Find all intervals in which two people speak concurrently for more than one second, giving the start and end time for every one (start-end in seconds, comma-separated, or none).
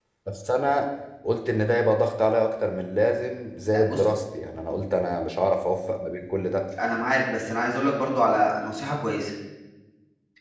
none